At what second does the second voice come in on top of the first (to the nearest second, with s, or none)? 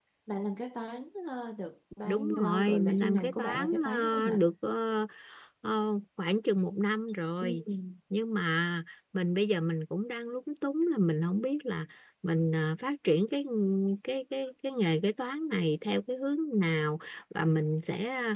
2 s